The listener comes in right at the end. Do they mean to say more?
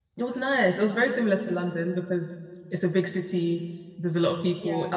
No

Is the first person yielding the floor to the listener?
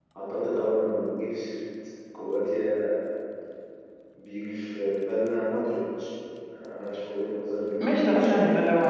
Yes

